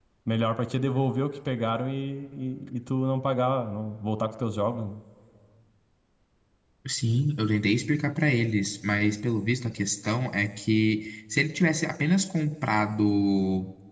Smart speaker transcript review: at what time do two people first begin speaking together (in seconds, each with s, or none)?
none